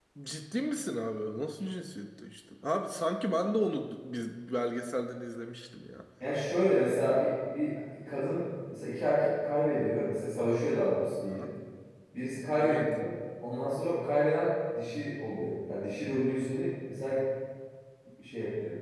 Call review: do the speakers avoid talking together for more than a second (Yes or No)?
Yes